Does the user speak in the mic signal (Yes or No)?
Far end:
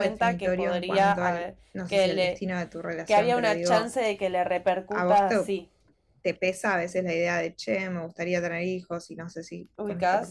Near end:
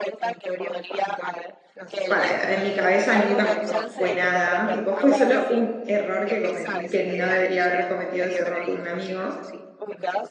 Yes